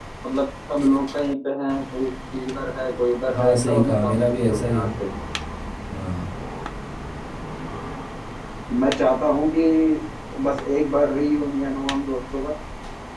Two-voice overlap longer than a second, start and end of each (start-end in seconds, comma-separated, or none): 3.3-4.9